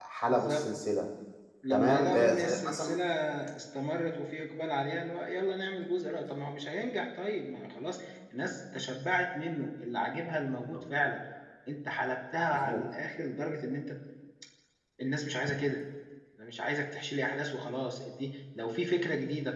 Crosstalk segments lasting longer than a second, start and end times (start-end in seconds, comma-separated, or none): 1.7-2.9